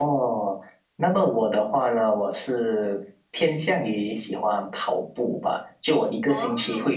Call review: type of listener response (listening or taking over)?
listening